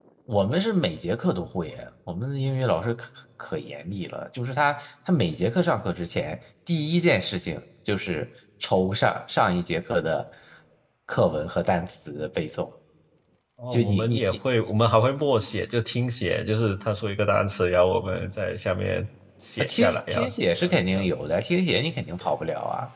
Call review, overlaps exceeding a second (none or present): present